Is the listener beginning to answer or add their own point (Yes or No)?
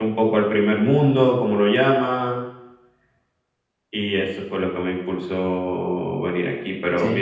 Yes